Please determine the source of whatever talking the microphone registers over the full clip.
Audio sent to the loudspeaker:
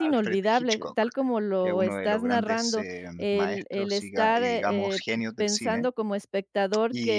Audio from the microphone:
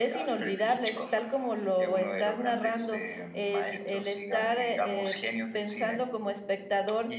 echo only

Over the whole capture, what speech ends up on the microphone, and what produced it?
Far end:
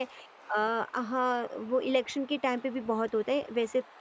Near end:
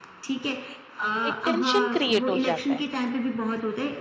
both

